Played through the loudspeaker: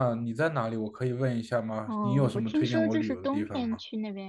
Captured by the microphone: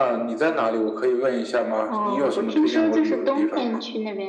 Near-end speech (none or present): none